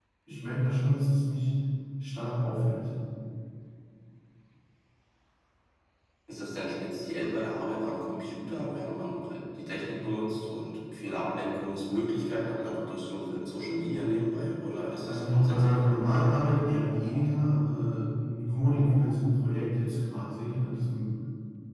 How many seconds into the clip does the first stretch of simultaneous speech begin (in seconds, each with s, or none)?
15.1 s